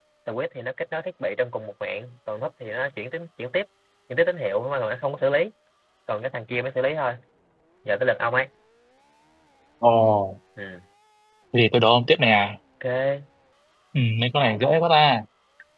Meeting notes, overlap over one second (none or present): none